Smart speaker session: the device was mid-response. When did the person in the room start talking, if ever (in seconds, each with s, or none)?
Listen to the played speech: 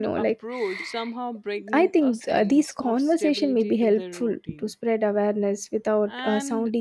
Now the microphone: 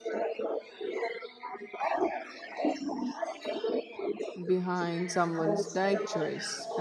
4.4 s